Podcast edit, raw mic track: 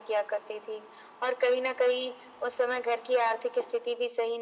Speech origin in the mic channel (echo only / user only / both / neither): echo only